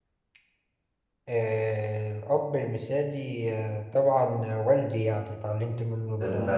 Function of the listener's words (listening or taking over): taking over